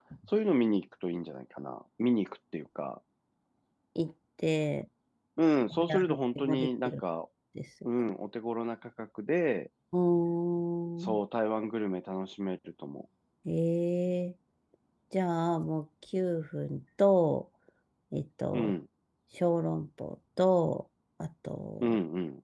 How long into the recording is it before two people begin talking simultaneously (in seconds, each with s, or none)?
5.7 s